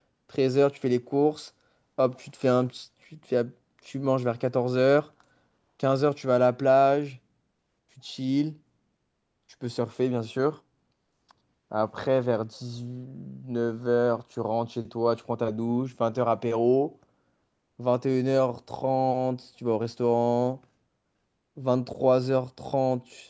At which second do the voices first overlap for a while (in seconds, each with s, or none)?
none